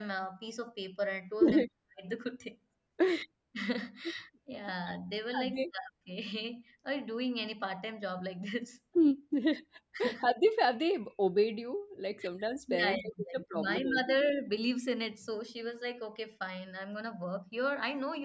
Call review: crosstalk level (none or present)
present